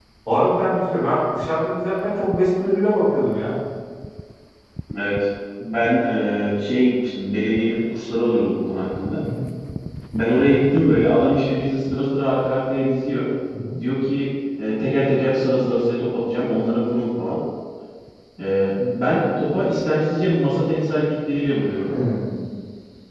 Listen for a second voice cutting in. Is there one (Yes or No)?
No